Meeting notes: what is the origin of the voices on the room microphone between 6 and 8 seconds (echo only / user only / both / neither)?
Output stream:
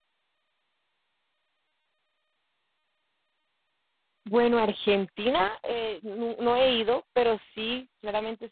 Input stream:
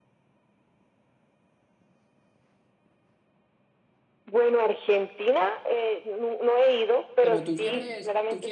both